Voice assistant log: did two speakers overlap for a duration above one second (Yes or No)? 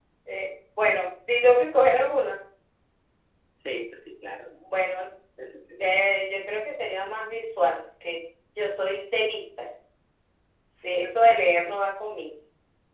No